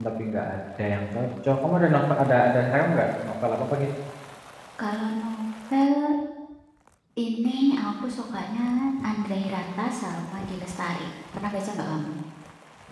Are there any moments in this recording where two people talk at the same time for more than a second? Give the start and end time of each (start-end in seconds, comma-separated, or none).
none